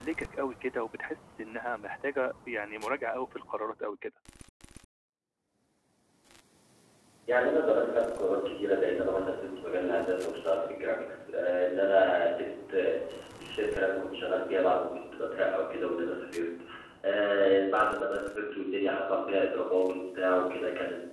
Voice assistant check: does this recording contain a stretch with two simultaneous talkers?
No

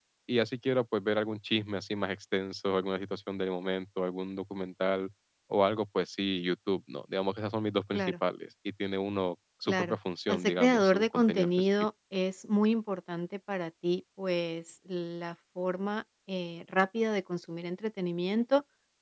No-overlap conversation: No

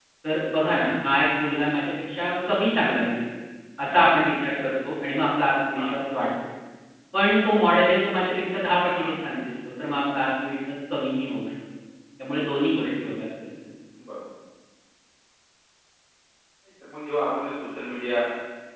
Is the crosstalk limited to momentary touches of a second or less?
Yes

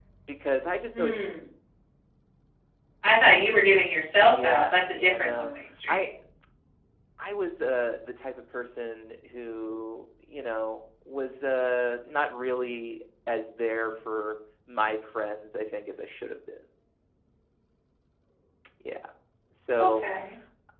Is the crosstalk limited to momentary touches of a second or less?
No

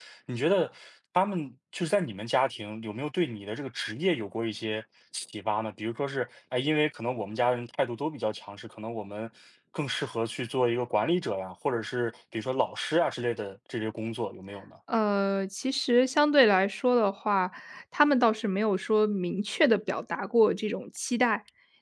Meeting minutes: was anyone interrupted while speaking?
No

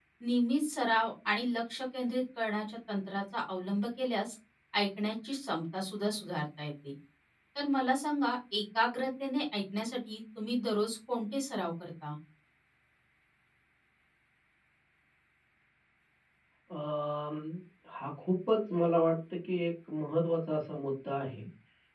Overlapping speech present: No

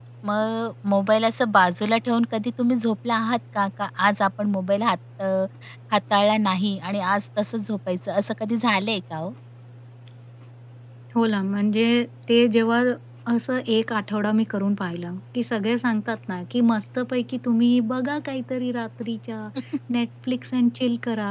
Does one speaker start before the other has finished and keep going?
No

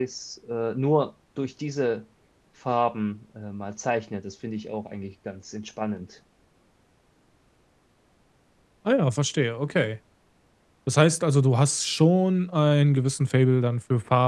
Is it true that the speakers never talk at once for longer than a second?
Yes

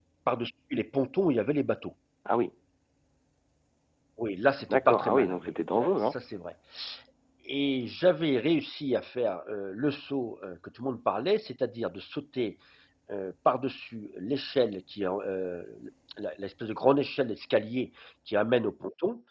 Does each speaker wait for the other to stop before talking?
No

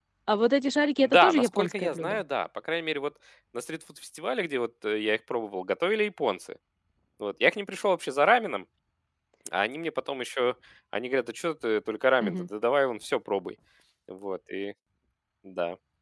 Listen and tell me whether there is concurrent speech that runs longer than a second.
Yes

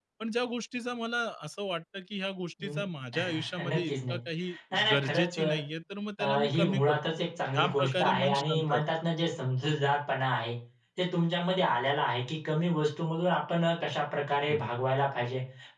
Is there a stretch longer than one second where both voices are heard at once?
Yes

